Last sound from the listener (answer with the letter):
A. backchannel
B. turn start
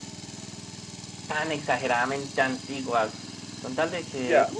A